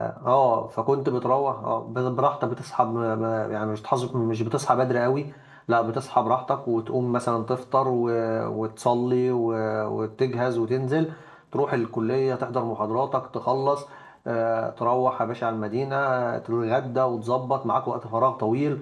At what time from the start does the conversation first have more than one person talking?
none

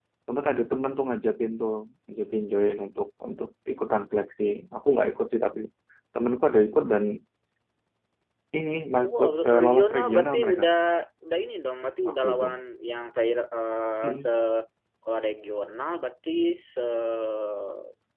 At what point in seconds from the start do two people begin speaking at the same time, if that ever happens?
9.0 s

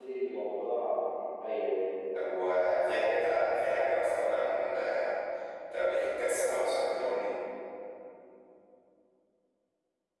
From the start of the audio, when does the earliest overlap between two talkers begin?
none

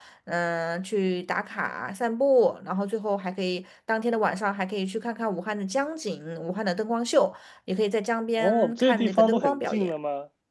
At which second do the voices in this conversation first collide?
8.4 s

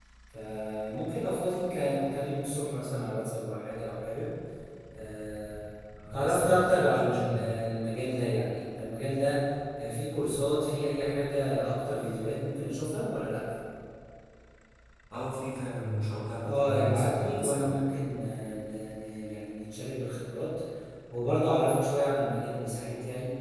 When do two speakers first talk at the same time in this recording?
6.1 s

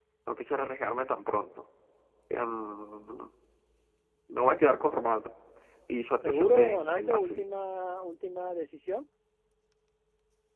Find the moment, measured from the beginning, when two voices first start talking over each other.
6.2 s

